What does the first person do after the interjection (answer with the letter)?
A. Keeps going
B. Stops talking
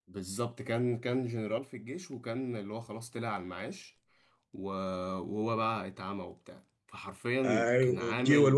B